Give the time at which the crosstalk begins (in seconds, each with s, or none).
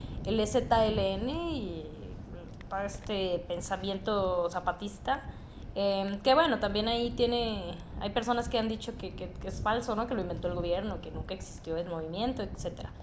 none